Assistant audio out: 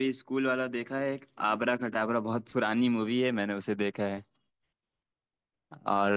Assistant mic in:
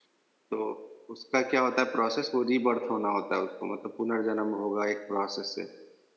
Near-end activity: present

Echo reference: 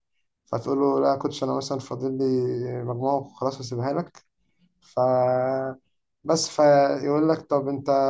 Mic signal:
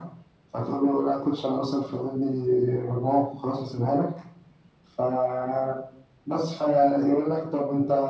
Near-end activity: none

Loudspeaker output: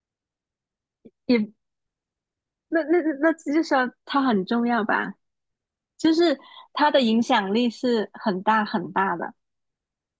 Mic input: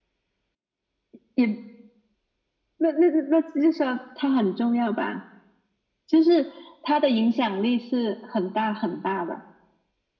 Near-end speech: none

